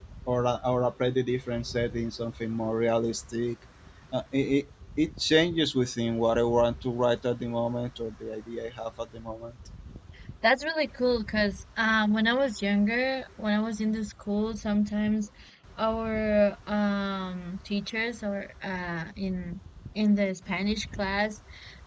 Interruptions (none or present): none